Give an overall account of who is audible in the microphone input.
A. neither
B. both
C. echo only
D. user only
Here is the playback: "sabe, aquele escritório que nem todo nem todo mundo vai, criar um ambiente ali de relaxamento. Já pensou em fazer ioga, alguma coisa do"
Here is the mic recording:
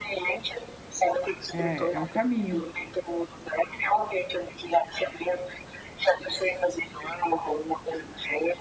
B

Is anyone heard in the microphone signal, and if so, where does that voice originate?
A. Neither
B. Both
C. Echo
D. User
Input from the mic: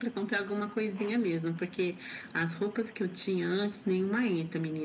C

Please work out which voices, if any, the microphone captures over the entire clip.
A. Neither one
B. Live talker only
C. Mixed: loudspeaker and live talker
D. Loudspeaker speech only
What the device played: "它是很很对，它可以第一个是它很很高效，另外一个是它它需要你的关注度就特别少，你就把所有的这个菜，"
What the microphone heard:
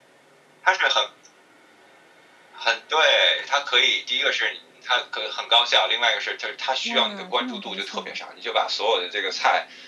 C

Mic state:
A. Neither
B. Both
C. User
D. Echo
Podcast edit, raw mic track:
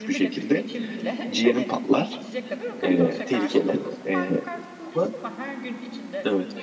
B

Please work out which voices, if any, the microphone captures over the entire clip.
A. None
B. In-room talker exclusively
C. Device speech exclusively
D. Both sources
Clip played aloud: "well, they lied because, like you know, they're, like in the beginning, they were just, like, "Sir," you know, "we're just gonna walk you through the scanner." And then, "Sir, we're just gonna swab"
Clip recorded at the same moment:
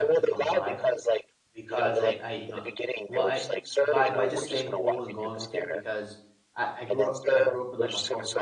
D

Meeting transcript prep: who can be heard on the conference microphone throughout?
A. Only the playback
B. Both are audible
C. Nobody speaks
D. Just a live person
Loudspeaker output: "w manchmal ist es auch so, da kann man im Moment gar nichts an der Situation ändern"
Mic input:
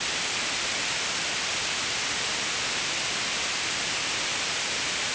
C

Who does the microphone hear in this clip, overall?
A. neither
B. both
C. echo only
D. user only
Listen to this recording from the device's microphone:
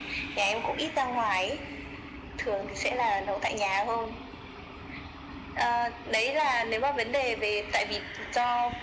C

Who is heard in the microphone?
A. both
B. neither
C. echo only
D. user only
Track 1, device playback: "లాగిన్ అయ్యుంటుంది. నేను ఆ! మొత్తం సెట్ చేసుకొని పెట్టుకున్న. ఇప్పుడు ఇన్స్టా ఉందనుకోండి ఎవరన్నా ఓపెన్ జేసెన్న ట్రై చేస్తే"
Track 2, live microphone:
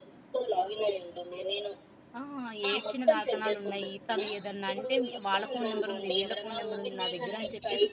A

